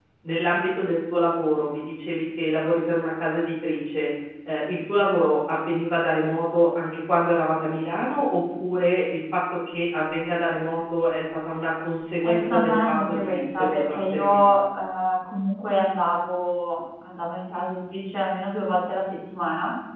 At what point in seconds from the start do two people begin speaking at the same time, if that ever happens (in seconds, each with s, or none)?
12.2 s